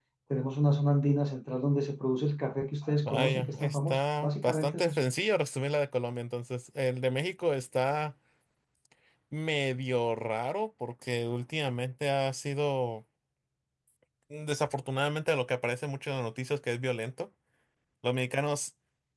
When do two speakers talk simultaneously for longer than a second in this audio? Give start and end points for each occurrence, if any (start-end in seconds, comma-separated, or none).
3.1-5.0